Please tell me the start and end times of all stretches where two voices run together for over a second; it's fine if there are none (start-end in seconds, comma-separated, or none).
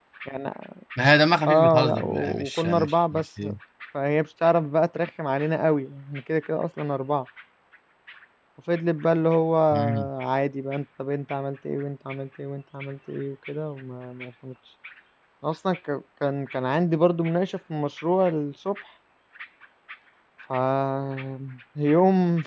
1.5-3.4